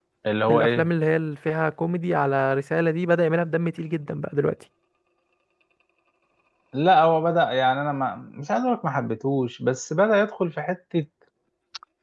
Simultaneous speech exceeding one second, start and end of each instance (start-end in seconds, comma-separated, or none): none